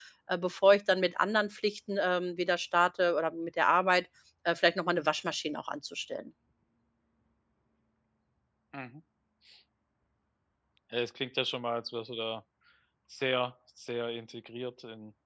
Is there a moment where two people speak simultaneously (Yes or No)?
No